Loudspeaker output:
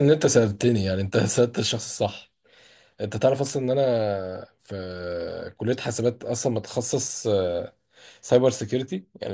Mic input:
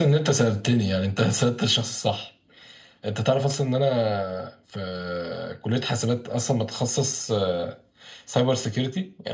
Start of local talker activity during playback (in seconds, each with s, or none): none